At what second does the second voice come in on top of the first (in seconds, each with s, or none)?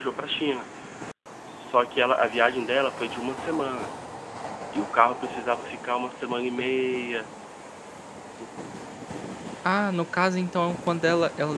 none